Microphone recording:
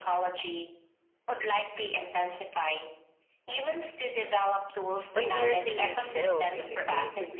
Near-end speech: present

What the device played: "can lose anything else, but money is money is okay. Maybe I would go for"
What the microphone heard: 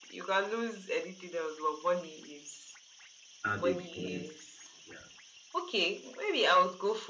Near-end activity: present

